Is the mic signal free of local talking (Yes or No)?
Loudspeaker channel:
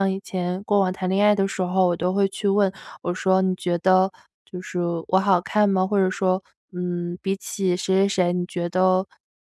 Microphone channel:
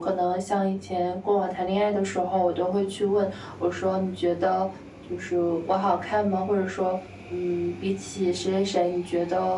Yes